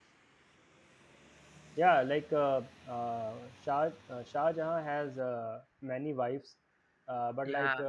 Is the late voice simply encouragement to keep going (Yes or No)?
Yes